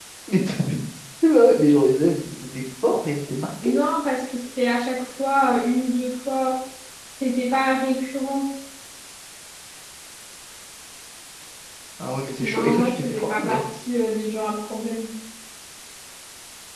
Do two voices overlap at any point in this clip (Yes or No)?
Yes